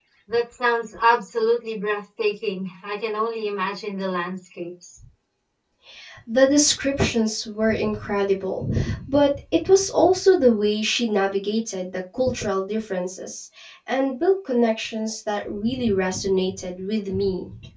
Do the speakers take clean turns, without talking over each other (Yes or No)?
Yes